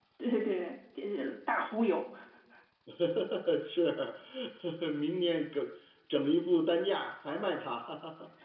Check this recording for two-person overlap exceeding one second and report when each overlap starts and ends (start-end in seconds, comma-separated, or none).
none